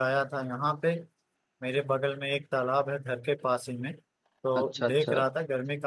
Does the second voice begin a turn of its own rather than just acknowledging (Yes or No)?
No